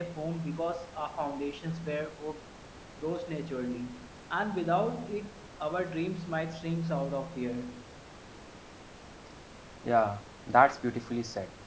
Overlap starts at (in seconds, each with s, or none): none